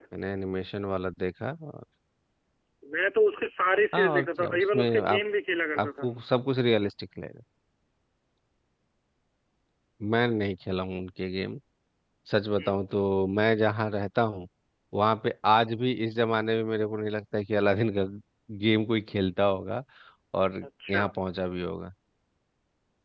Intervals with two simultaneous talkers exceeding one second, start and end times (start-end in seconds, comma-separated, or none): 3.9-5.2